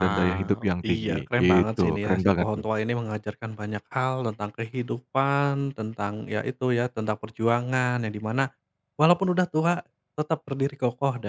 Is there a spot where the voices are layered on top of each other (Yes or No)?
Yes